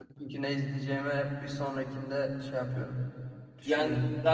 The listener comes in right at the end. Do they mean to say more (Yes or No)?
Yes